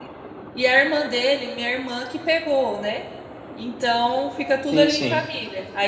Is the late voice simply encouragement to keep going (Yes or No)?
Yes